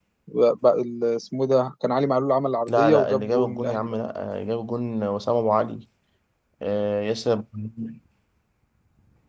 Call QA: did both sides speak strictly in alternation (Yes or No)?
No